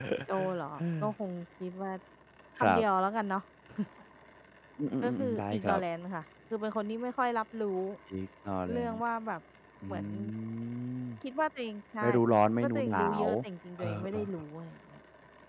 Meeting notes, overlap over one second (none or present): present